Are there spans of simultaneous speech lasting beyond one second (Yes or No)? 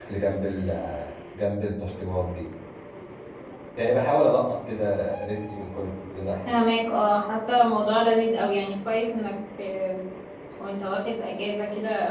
No